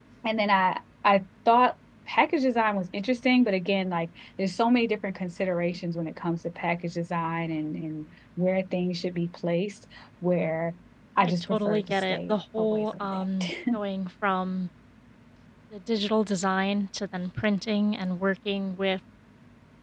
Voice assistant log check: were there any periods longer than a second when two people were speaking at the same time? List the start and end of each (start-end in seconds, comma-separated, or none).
11.2-13.8